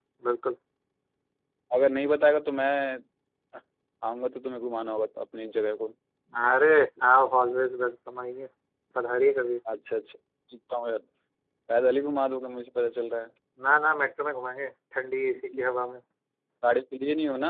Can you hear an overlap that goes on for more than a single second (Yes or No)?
No